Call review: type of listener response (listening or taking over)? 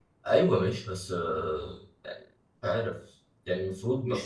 taking over